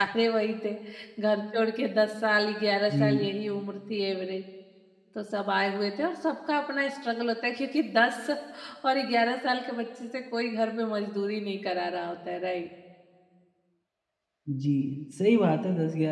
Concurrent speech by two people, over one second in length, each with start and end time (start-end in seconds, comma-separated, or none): none